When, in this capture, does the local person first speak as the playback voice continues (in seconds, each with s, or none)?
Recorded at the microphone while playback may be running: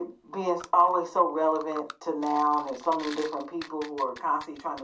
none